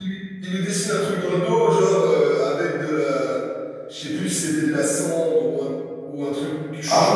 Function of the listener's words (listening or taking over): taking over